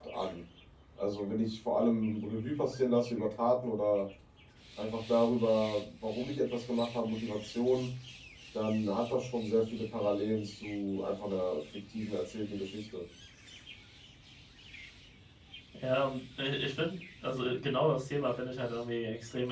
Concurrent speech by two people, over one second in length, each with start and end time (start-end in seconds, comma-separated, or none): none